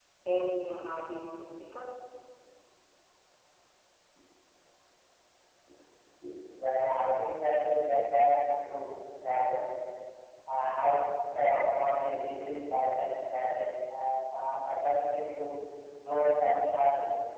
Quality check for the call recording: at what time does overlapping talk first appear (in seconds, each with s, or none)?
none